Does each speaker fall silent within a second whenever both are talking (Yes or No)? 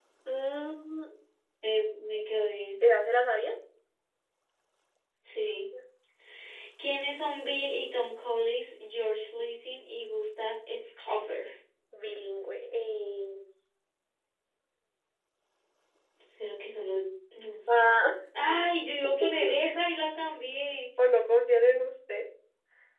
Yes